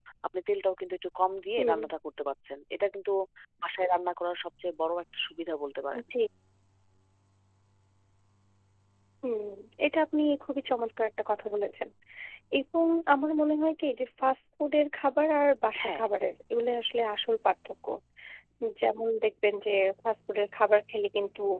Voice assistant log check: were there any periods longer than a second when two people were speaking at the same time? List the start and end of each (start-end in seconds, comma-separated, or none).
none